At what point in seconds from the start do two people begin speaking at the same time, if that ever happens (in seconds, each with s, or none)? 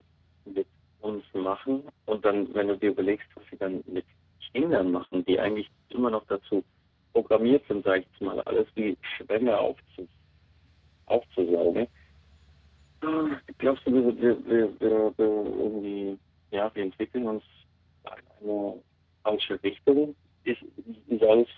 none